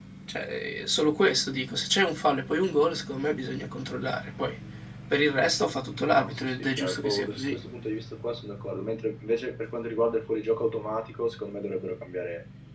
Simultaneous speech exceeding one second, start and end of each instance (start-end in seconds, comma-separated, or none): 6.1-7.6